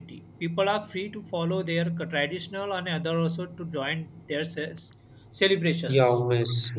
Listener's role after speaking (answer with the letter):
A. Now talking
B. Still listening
A